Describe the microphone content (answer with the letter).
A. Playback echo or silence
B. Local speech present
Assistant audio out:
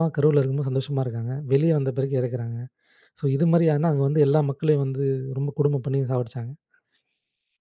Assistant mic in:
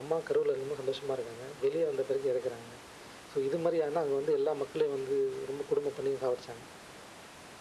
A